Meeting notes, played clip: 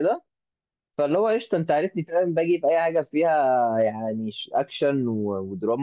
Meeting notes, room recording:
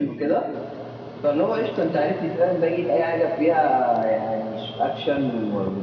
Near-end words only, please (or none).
none